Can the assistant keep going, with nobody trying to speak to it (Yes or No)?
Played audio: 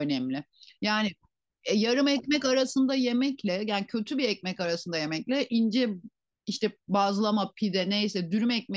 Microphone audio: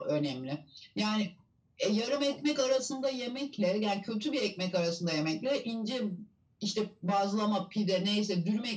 Yes